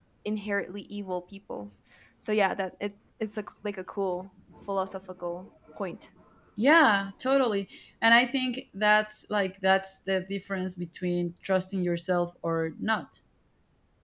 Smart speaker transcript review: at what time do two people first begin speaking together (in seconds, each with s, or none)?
none